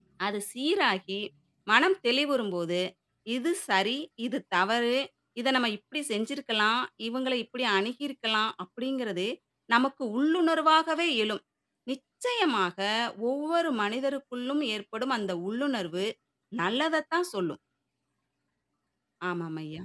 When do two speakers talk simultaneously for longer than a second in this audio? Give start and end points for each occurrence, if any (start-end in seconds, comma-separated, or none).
none